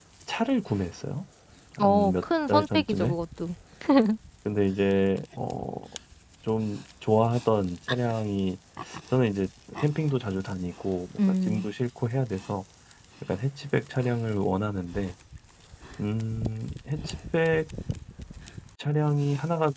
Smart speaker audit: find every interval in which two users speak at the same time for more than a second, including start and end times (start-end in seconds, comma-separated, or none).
1.8-3.2